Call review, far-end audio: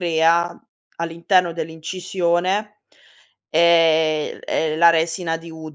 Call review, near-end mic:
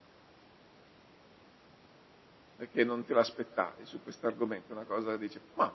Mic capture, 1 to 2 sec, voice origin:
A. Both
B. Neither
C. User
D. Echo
B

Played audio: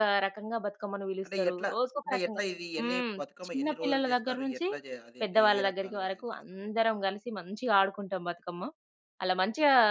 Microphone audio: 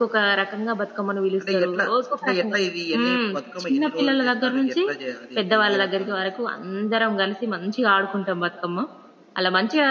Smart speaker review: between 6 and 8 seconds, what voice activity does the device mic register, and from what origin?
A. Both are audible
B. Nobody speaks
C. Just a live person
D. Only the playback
D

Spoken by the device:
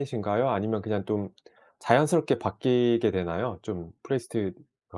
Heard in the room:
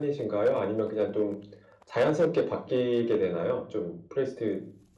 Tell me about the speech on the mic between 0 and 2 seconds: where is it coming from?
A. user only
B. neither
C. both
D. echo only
D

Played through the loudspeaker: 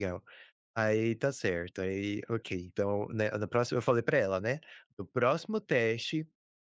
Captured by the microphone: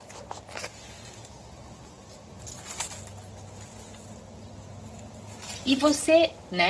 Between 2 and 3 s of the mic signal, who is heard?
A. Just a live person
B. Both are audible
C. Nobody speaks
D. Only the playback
C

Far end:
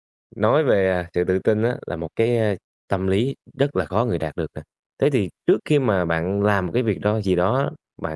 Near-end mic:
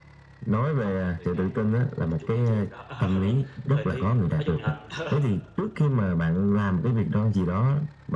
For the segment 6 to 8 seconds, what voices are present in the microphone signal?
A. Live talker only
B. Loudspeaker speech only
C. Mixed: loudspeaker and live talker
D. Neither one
B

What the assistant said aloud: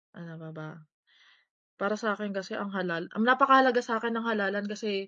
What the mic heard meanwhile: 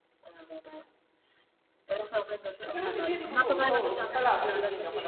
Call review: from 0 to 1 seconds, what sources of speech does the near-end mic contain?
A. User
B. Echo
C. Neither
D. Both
B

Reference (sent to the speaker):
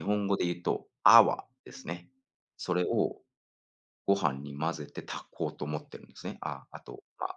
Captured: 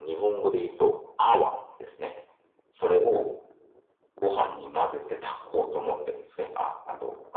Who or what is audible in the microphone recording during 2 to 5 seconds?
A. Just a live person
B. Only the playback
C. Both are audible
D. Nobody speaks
B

